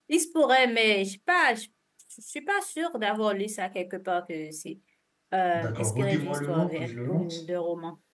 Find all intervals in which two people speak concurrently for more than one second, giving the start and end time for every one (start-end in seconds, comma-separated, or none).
5.5-7.4